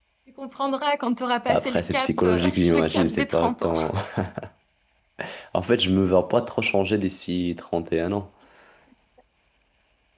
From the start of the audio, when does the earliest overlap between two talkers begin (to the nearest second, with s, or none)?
1 s